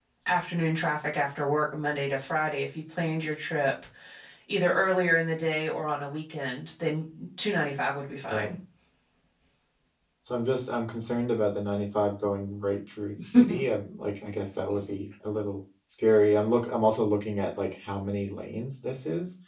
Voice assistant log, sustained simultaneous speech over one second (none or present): none